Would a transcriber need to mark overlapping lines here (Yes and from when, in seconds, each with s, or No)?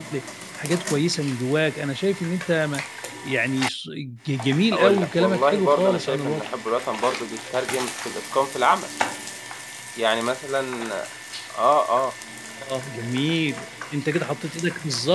Yes, from 4.7 s